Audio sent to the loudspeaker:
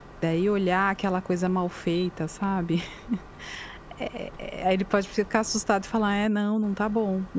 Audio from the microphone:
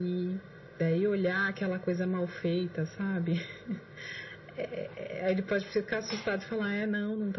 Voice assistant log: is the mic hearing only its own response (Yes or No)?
Yes